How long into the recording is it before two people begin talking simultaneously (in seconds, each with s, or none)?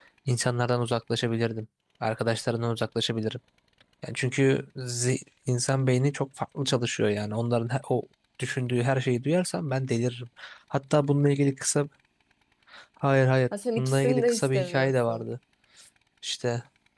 13.8 s